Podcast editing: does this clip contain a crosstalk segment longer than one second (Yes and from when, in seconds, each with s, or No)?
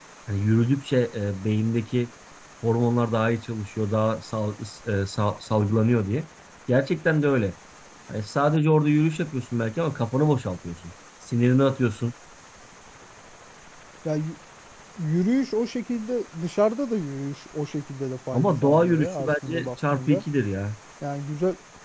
Yes, from 18.3 s